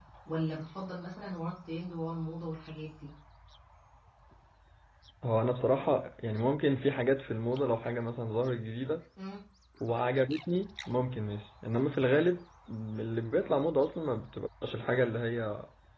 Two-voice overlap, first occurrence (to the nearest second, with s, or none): none